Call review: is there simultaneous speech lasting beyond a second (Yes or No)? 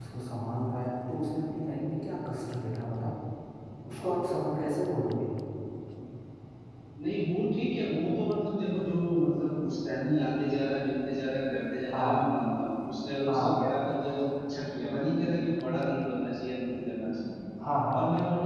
No